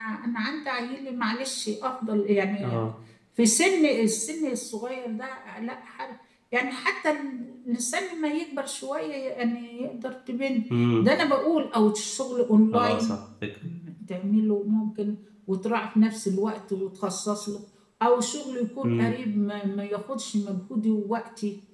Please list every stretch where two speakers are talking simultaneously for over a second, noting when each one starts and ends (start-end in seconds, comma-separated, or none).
none